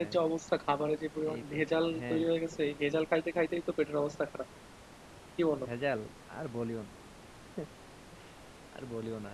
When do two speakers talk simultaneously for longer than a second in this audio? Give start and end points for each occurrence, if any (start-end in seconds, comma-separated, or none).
none